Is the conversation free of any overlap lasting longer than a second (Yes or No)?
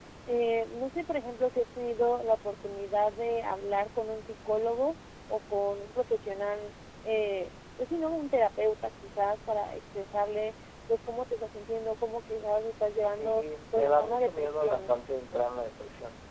No